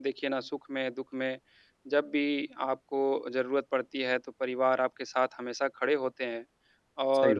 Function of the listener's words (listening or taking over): listening